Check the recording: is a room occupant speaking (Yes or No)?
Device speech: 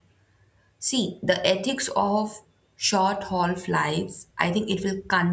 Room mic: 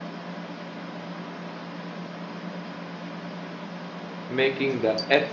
Yes